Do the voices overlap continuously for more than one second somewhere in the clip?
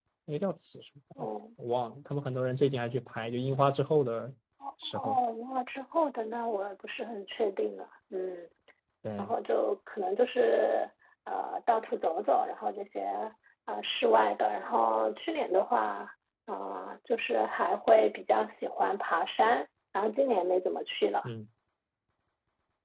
No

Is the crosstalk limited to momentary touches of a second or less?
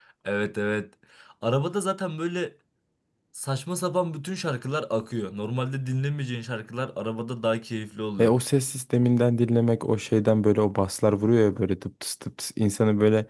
Yes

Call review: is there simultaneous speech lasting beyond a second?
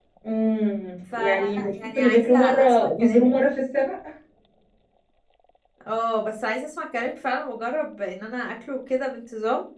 Yes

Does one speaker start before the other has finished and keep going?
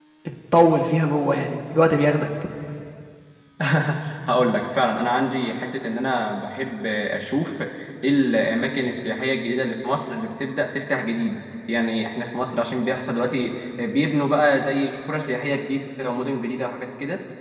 No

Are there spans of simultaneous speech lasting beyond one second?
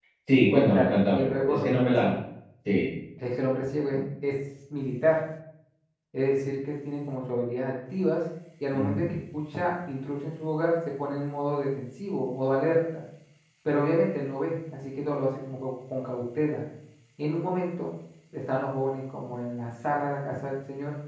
Yes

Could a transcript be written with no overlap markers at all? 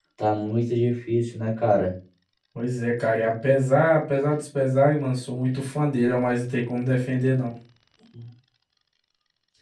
Yes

